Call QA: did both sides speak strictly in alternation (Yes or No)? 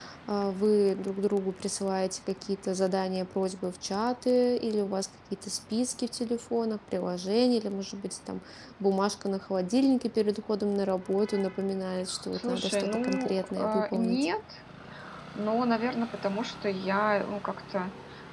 No